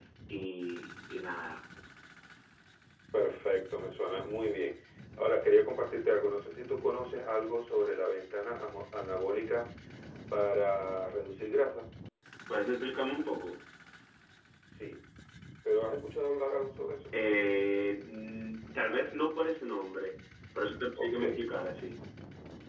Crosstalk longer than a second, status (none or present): none